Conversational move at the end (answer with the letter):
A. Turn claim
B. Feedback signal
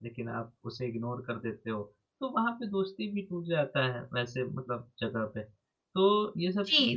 A